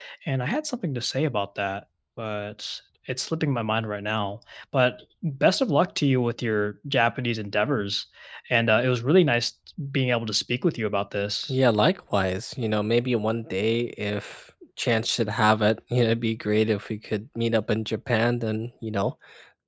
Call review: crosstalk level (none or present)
none